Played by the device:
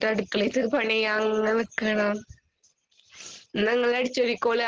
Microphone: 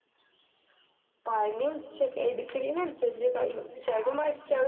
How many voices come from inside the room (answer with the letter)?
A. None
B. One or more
B